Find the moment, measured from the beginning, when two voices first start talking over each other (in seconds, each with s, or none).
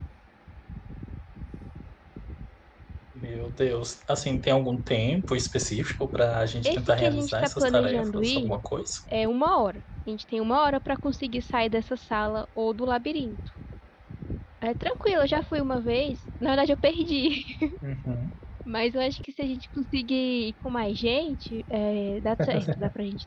6.6 s